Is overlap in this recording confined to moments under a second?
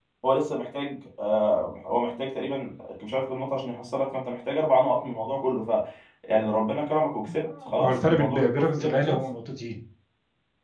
No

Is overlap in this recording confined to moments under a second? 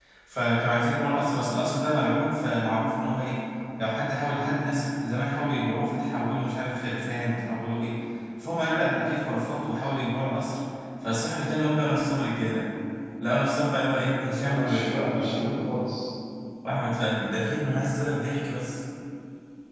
No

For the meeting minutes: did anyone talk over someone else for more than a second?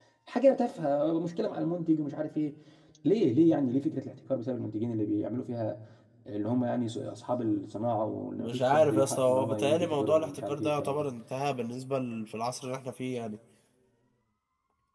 Yes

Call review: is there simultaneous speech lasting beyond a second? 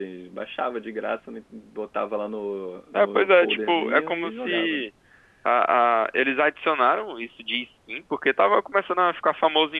Yes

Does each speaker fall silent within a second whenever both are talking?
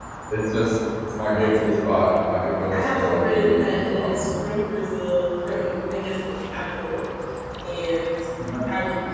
No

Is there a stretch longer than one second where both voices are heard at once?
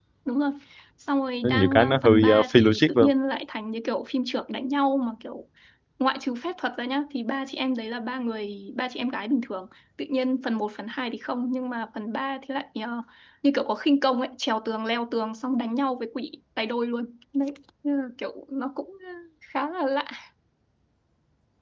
Yes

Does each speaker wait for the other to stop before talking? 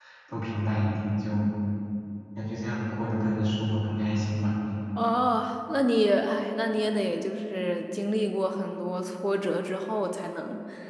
Yes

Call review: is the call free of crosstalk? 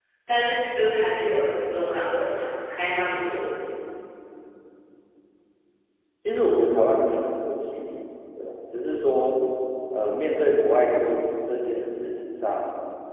Yes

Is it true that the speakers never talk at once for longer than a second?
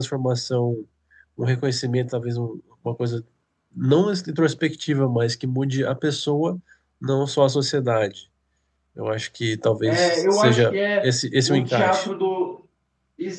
No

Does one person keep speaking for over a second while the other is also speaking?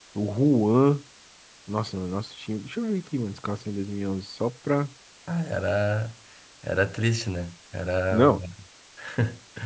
No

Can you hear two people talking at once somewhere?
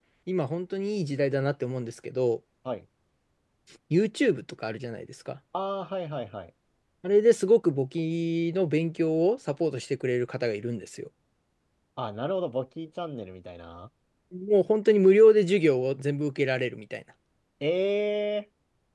No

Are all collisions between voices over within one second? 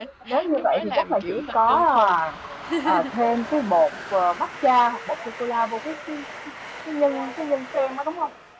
No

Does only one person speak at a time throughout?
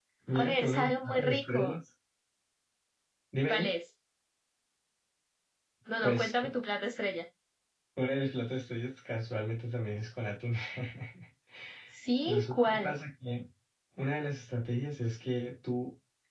No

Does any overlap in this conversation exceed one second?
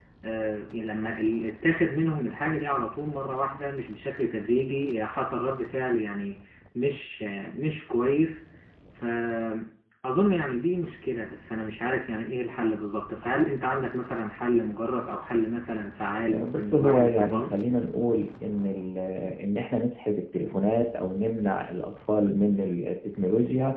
Yes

